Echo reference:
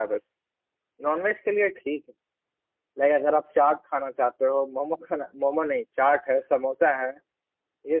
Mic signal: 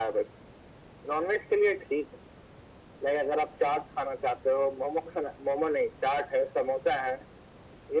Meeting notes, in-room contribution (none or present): none